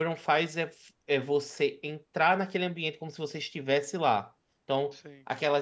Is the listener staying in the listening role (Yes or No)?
Yes